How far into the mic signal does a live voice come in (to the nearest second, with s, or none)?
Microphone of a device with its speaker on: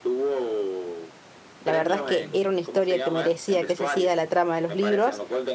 2 s